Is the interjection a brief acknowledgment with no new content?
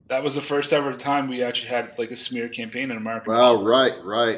No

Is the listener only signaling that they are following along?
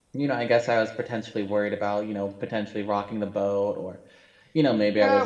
No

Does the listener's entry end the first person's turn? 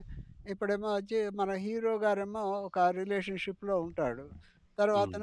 No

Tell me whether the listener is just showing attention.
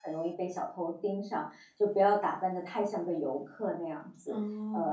Yes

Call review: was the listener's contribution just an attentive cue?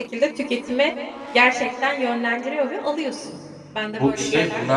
No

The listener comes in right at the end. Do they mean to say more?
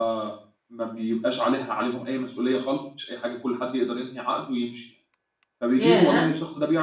No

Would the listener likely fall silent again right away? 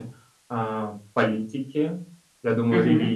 Yes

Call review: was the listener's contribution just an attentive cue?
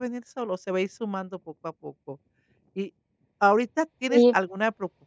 Yes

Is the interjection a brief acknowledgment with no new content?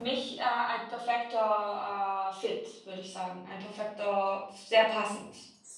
No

